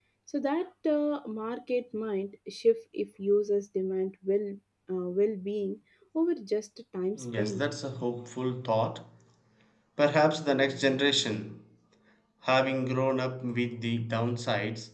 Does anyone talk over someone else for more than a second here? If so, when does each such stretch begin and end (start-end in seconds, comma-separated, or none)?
none